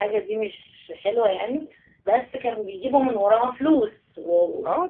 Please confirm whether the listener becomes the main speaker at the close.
Yes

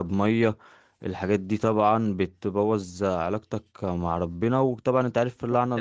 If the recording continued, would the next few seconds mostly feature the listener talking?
No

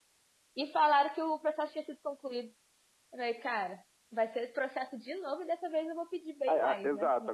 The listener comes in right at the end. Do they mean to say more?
Yes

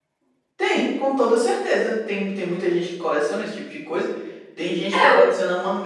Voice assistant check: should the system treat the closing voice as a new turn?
No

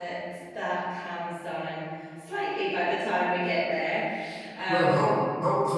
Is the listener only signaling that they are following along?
No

